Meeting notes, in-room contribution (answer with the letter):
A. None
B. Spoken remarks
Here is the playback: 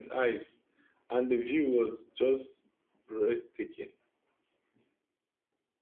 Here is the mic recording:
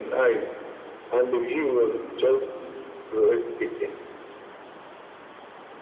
A